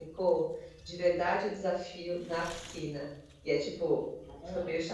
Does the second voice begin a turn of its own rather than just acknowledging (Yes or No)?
No